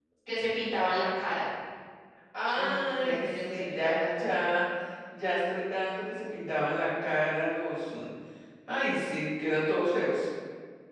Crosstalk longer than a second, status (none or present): present